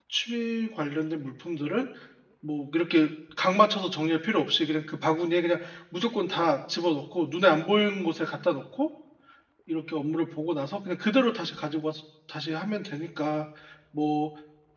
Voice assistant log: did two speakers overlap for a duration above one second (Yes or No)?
No